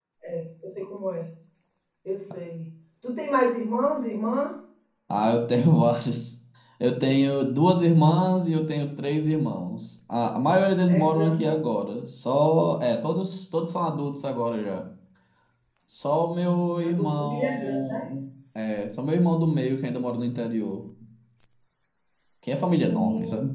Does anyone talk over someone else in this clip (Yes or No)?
Yes